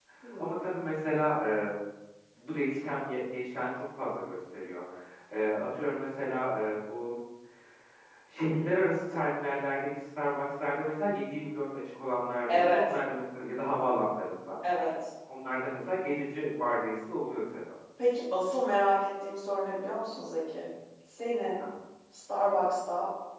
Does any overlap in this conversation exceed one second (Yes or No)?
No